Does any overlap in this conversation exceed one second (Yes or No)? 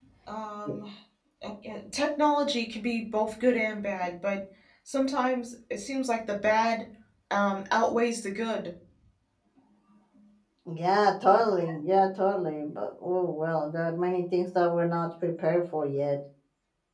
No